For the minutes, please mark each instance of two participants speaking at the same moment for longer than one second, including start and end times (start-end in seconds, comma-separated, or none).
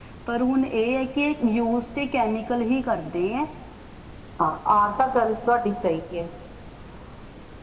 none